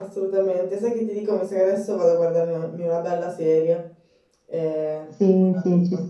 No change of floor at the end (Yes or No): No